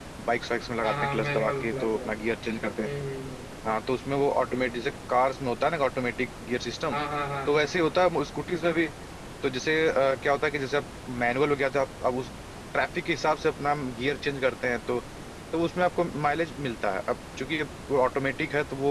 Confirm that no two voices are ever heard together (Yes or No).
No